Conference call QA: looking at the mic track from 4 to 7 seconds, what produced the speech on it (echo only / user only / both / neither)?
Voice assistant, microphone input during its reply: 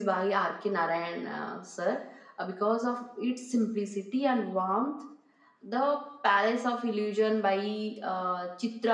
echo only